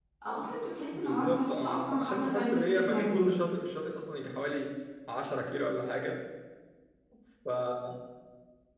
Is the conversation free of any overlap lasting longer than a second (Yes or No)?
No